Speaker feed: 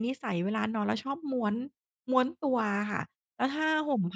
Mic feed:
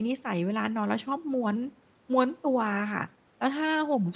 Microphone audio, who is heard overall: echo only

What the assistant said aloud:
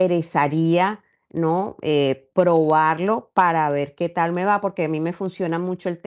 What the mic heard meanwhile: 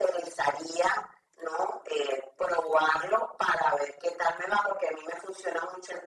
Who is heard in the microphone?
echo only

